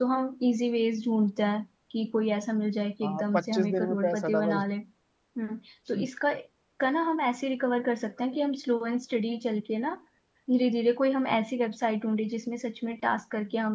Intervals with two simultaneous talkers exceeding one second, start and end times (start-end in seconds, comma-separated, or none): 3.0-4.6